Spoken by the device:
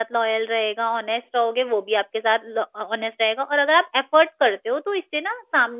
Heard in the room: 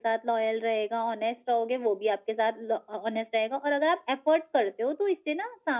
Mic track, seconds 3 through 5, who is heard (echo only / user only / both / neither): echo only